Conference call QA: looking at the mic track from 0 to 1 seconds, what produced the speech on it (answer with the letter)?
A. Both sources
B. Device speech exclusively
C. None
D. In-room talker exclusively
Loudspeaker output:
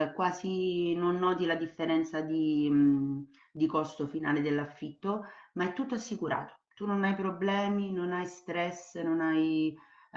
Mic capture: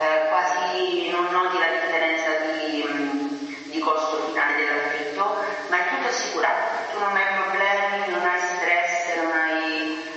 B